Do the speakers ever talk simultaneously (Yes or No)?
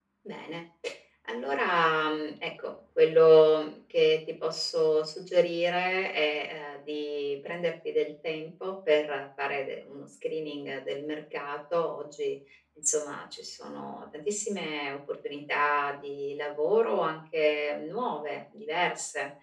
No